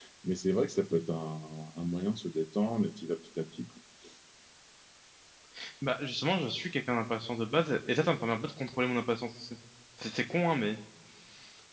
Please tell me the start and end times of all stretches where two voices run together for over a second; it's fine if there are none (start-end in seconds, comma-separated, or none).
none